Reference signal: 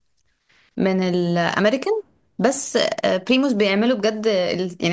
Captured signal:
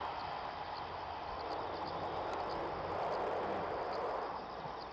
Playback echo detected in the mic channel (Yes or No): No